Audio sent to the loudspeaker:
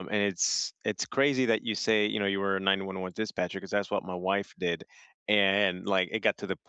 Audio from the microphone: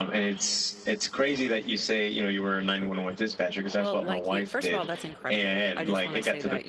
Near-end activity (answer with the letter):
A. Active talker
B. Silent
A